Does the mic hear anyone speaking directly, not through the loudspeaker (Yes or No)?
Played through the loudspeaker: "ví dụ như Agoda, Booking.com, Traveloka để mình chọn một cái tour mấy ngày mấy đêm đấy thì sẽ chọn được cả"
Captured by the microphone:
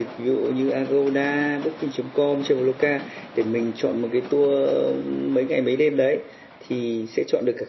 No